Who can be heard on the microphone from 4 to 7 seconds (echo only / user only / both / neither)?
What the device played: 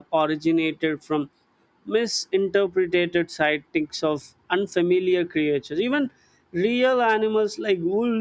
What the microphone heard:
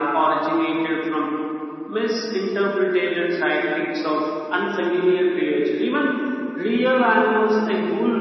echo only